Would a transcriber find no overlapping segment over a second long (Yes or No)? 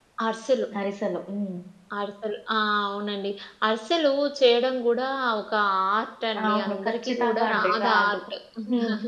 No